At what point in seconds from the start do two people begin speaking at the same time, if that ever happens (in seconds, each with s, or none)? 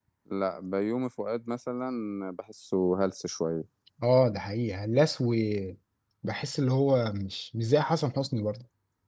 none